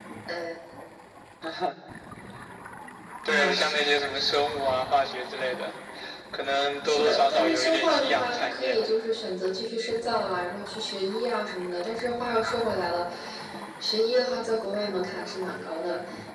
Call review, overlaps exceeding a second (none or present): present